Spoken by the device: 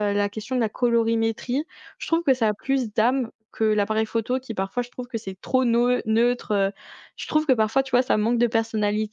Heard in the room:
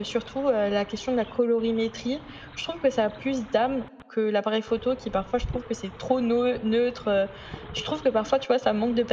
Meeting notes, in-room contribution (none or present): none